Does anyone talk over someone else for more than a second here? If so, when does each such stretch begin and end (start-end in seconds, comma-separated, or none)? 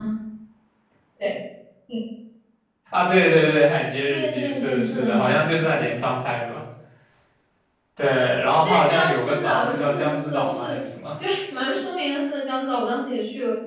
4.1-5.6, 8.6-10.6